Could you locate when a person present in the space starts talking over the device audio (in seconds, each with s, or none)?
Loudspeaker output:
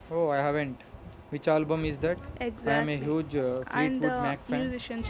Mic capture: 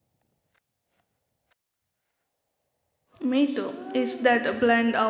3.2 s